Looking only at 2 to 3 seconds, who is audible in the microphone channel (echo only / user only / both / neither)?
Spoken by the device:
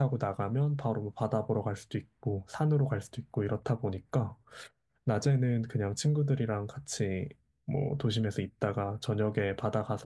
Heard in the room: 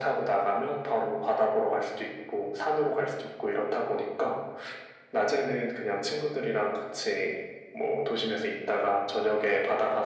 echo only